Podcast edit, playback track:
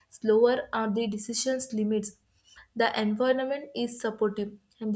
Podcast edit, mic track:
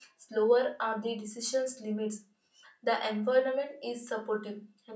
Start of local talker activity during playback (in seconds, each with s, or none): none